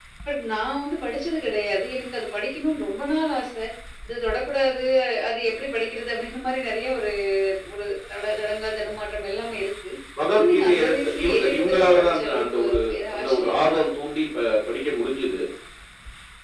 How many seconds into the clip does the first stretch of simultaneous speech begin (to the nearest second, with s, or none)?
10 s